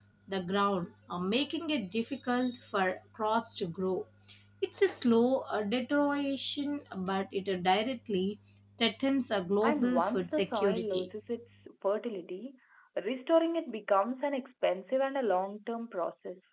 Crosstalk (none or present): present